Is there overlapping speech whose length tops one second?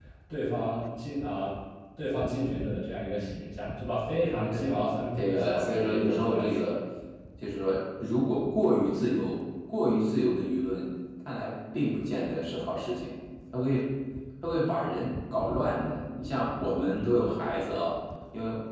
Yes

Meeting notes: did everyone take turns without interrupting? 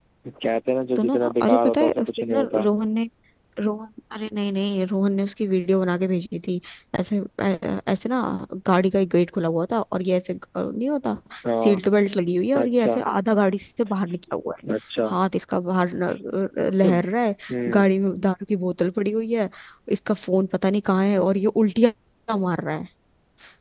No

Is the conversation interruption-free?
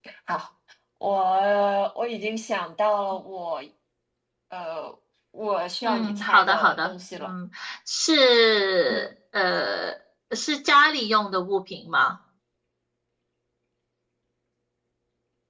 No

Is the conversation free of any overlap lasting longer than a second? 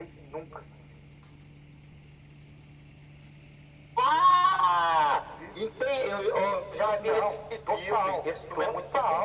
No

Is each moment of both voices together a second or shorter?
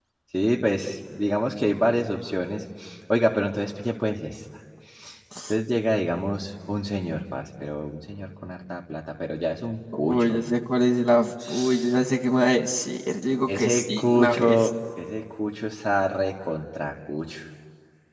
No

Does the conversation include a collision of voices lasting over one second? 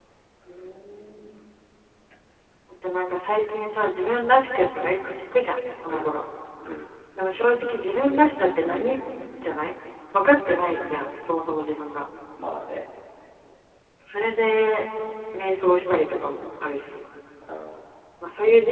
No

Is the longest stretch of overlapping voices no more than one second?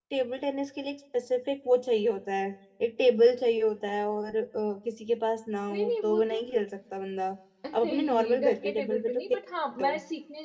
No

